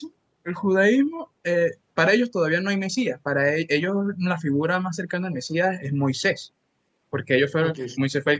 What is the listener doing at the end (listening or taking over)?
listening